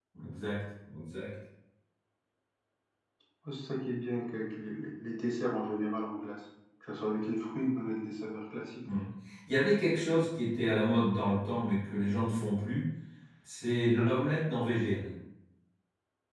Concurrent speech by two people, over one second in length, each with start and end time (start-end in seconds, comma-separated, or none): none